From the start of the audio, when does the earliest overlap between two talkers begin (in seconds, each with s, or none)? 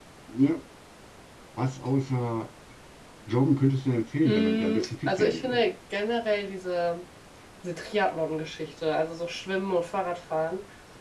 4.2 s